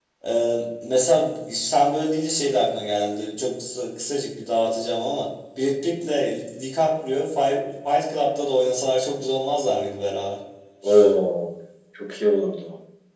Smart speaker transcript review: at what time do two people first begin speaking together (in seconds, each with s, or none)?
none